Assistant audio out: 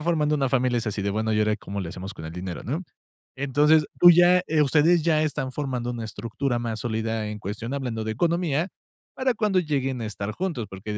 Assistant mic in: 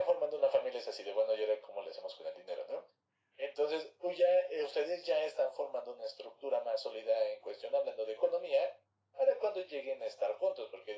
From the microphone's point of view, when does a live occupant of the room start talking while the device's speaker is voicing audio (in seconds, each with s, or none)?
none